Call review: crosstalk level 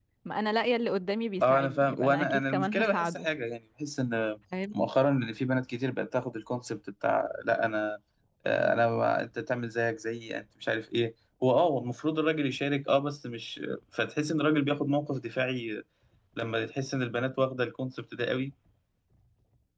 present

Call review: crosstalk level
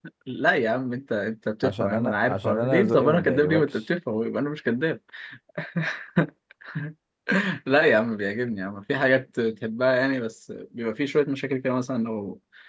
present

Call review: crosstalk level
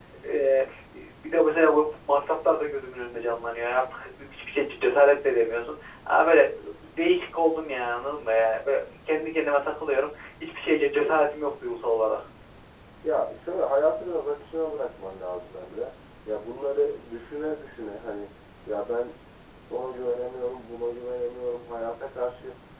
none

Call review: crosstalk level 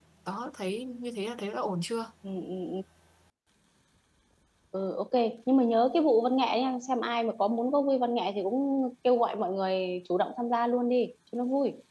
none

